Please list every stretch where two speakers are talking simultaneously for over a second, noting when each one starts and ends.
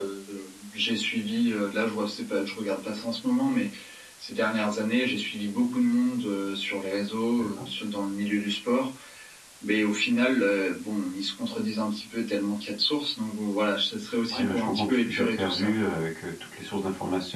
14.3-15.9

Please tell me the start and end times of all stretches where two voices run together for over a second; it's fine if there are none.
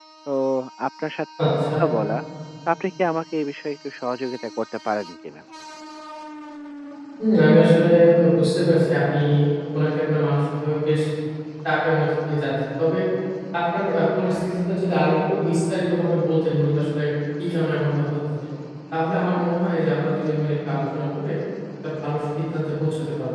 none

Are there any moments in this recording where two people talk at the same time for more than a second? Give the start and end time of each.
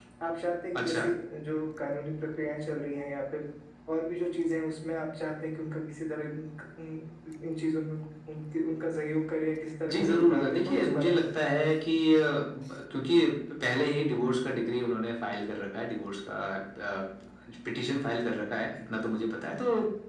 9.9-11.5

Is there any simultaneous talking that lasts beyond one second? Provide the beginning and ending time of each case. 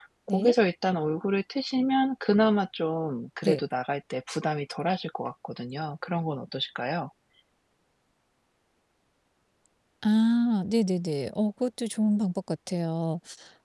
none

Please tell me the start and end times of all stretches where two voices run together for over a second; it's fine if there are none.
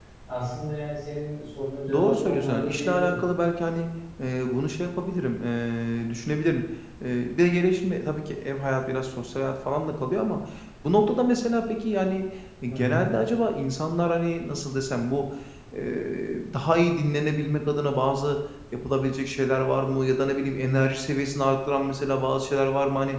1.9-3.2

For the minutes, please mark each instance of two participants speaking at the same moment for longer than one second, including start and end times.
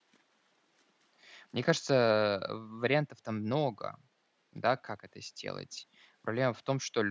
none

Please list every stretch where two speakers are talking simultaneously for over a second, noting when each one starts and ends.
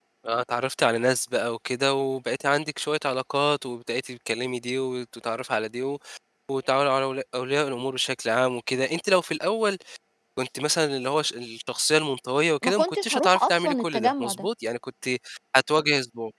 12.6-14.5

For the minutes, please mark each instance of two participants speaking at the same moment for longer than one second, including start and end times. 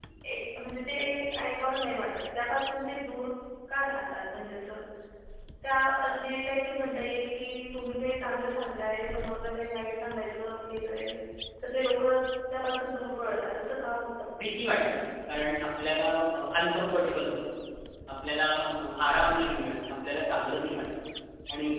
none

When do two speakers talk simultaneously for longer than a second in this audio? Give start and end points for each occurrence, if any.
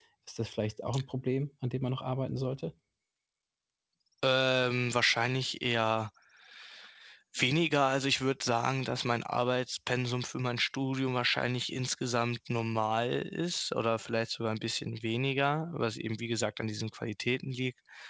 none

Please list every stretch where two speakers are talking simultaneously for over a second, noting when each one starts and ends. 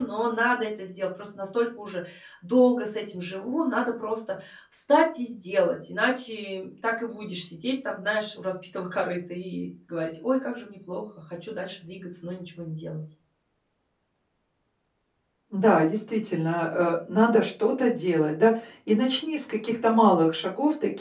none

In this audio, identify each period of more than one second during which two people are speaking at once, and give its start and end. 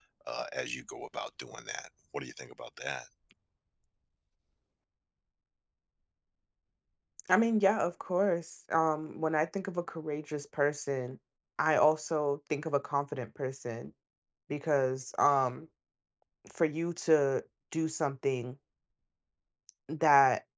none

